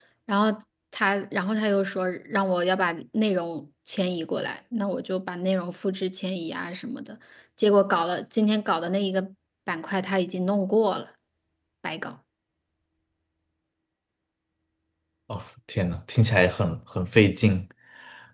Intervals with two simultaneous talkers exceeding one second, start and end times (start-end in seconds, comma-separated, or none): none